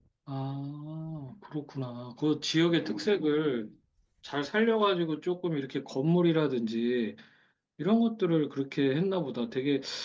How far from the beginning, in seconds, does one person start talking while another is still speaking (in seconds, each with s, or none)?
none